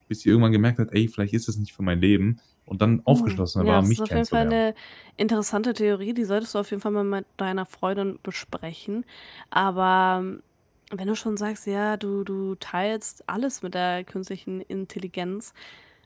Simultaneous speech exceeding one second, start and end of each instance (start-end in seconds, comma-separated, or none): 3.1-4.6